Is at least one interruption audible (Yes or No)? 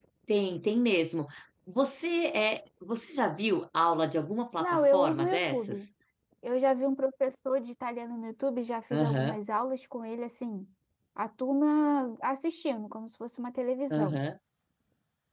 Yes